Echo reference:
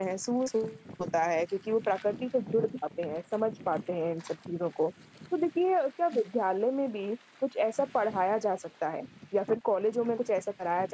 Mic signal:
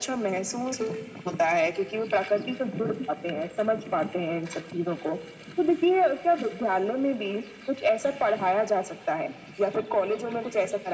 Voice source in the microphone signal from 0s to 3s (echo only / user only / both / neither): echo only